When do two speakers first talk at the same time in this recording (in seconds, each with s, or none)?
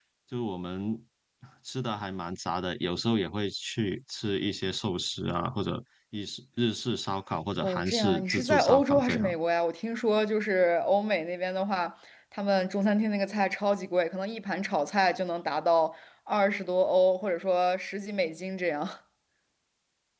7.6 s